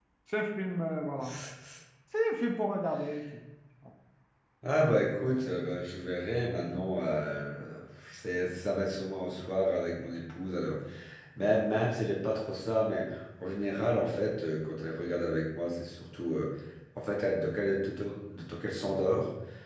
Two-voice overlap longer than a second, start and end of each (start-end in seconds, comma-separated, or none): none